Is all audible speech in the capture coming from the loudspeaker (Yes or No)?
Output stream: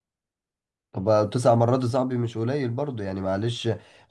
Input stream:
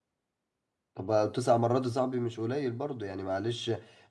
Yes